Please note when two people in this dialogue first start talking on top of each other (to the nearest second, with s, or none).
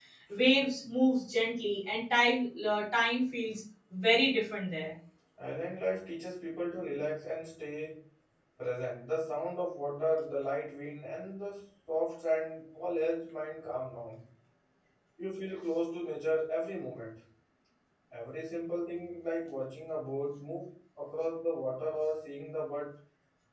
none